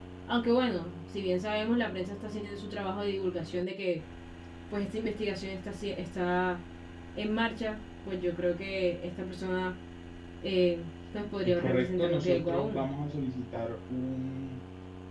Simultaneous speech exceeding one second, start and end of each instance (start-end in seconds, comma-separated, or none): 11.4-12.8